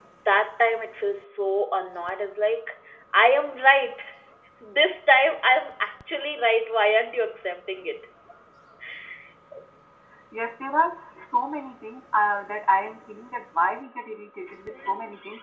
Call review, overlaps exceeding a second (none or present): none